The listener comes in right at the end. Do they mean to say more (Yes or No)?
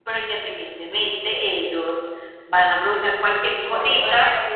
Yes